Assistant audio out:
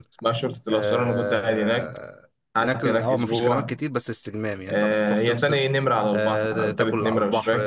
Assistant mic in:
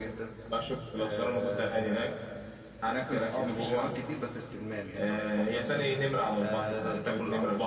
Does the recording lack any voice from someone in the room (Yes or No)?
Yes